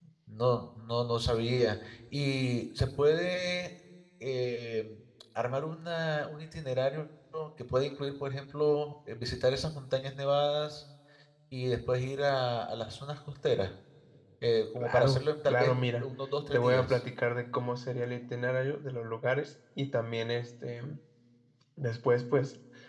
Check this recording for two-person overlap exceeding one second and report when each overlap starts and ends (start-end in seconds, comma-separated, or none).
14.8-16.1